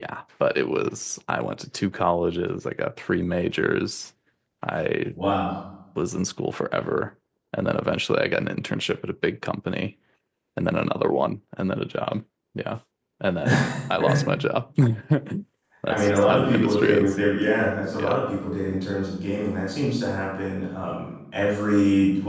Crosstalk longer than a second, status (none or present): present